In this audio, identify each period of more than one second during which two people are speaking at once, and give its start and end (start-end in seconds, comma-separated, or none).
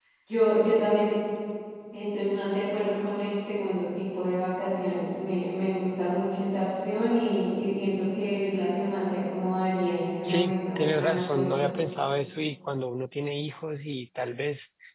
10.2-11.7